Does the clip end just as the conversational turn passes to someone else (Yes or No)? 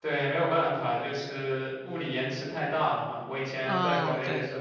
No